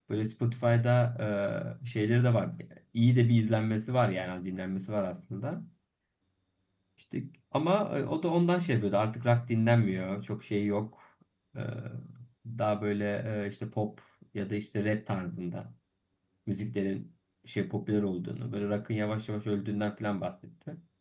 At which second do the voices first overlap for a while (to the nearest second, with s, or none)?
none